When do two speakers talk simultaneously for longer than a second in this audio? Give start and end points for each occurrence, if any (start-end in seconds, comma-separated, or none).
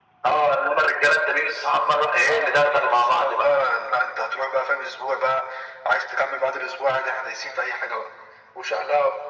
2.2-3.6